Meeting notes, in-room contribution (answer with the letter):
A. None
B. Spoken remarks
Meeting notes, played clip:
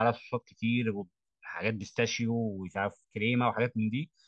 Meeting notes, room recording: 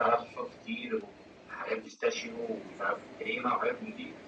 A